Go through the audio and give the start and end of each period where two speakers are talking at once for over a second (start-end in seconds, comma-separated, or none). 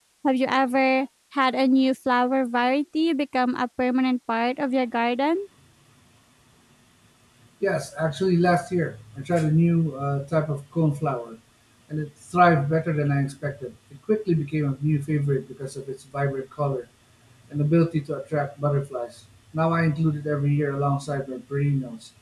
none